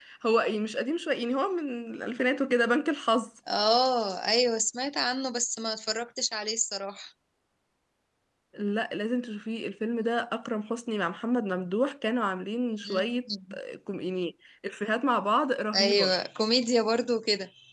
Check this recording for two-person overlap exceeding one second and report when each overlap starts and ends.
none

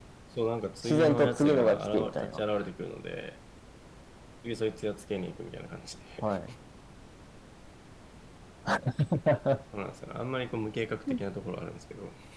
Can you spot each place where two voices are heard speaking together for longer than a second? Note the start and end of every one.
0.8-2.4

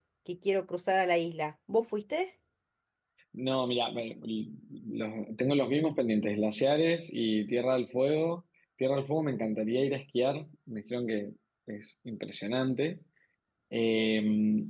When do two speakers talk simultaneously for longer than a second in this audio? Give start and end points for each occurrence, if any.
none

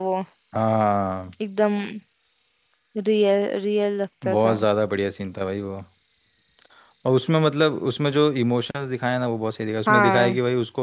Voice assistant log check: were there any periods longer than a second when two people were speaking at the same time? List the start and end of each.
none

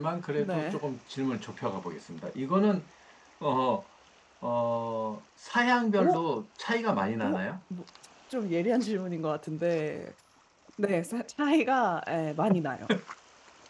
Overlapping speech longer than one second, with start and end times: none

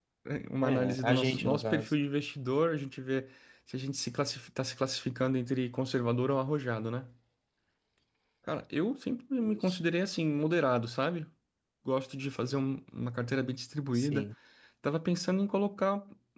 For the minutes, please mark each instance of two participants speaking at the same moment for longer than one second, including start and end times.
0.6-1.9

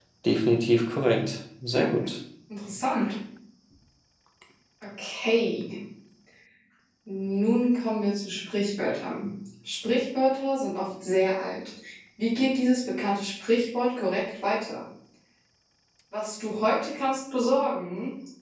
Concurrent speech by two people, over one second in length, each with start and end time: none

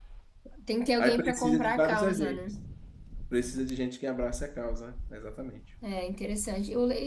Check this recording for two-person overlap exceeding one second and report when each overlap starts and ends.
1.0-2.4

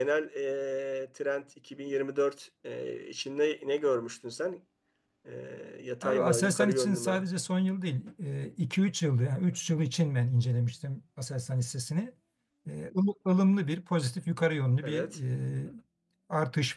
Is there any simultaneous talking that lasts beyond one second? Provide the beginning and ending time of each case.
6.0-7.2

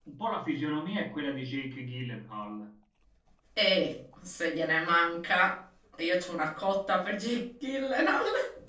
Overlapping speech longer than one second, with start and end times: none

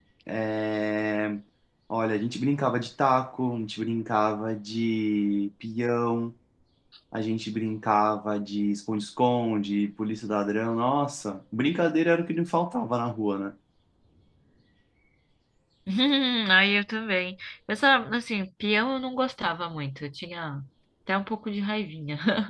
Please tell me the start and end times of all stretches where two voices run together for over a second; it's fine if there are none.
none

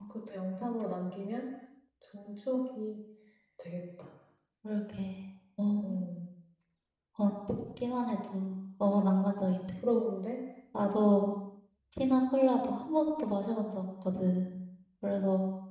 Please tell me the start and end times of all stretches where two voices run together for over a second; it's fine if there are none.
none

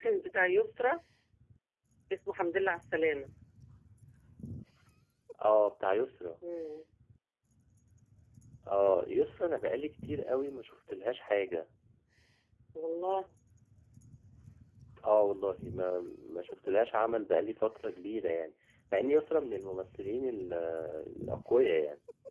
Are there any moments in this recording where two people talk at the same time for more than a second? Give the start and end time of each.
none

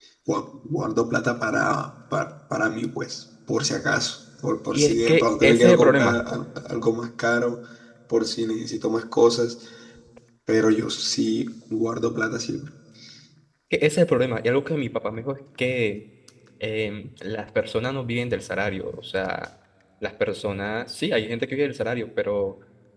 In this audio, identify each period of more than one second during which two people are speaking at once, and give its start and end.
4.7-6.2

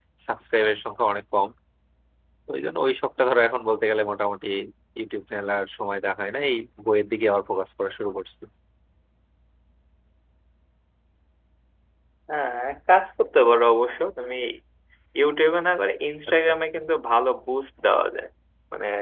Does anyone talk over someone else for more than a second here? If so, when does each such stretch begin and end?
none

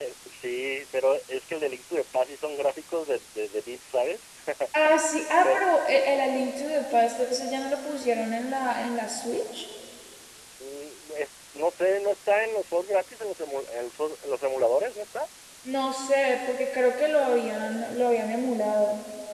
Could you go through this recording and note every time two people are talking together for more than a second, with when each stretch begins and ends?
none

